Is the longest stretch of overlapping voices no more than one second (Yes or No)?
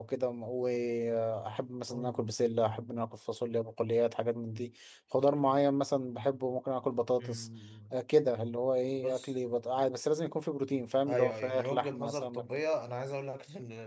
No